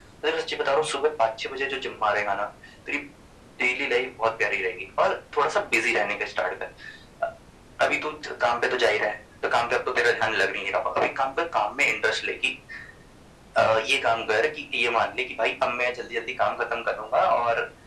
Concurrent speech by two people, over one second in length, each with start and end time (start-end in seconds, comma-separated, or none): none